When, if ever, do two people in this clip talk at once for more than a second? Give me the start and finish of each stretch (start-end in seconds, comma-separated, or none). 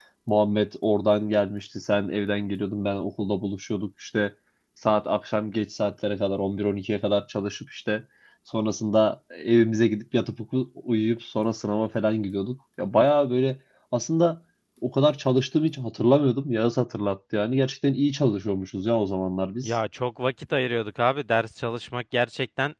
none